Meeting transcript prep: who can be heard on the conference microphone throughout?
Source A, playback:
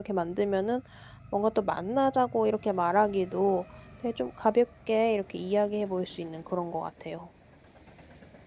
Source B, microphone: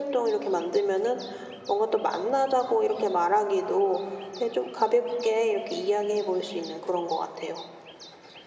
echo only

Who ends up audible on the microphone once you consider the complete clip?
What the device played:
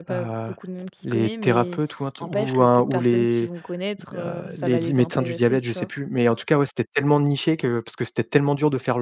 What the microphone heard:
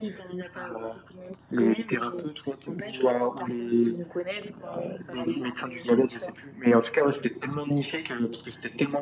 echo only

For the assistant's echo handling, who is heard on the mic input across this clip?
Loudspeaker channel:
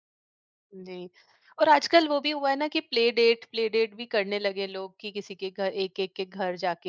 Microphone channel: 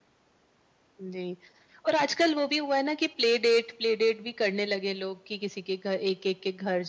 echo only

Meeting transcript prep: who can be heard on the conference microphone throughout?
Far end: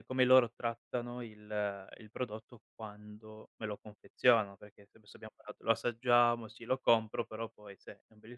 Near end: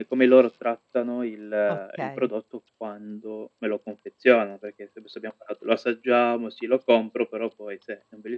both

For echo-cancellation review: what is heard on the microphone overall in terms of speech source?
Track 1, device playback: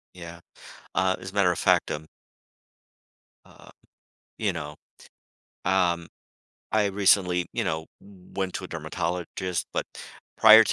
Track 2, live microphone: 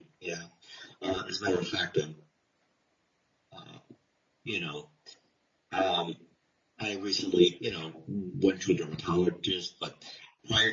echo only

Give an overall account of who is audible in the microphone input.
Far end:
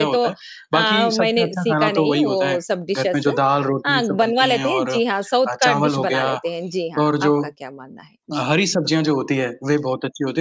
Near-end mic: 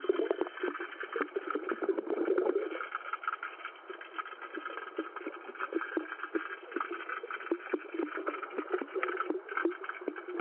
neither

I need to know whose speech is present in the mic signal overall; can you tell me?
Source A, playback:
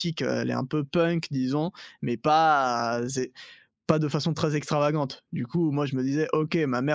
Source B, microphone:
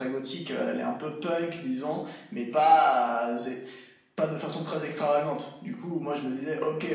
echo only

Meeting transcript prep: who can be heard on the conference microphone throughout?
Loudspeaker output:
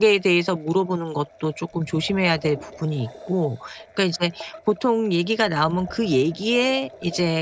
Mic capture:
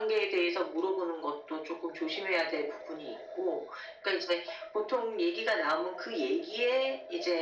echo only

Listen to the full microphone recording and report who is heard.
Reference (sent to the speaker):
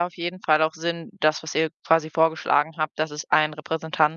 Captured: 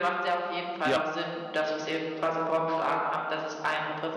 both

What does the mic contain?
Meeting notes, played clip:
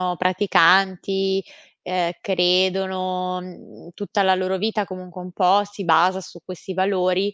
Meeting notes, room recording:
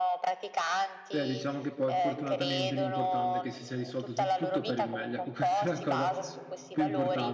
both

